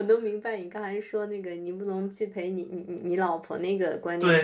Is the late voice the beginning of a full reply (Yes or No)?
Yes